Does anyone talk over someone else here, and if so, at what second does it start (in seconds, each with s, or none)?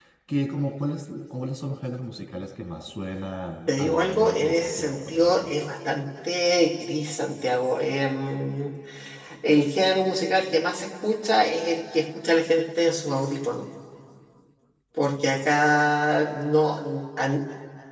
3.7 s